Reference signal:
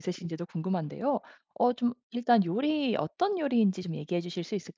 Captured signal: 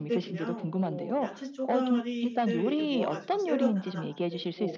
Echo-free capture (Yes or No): No